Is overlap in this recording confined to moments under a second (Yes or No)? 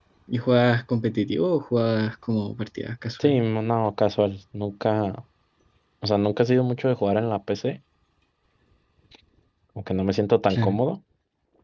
Yes